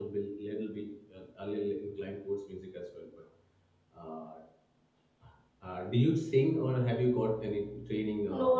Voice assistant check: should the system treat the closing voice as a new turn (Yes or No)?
Yes